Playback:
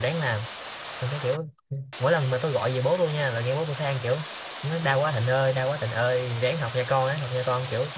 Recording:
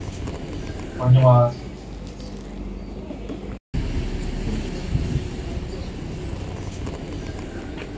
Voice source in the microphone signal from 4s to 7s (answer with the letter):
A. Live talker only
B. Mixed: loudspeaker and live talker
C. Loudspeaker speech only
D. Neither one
D